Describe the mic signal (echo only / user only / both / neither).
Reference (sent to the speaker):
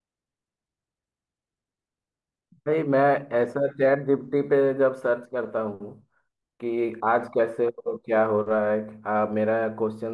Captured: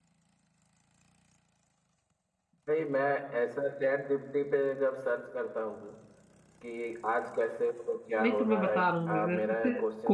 both